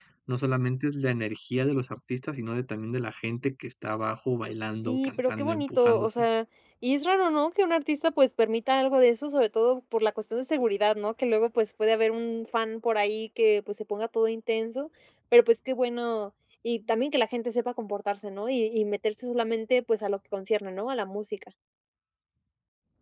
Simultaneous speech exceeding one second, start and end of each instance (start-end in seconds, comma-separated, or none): 4.9-6.2